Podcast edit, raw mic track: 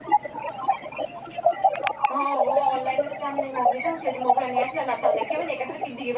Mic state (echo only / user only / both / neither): both